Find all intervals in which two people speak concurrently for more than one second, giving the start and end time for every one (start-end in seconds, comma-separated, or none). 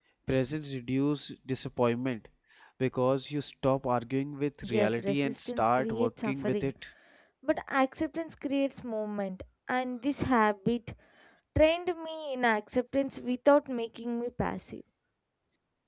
4.7-6.7